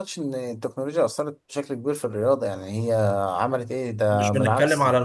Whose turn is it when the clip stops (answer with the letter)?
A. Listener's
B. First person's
A